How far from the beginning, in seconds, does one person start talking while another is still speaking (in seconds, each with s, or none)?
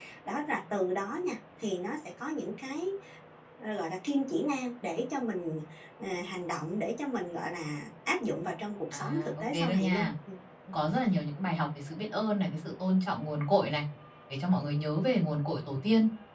8.9 s